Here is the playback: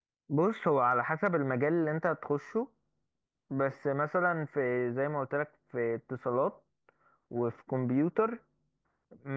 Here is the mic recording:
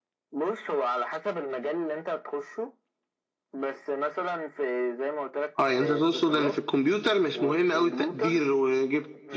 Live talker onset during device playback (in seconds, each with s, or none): 5.6 s